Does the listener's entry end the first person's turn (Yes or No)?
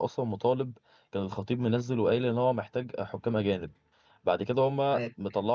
No